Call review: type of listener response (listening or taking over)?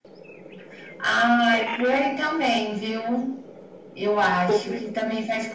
listening